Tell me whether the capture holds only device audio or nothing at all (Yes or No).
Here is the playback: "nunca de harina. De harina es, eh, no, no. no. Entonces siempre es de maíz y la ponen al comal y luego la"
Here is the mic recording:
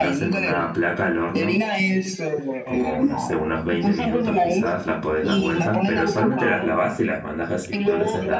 No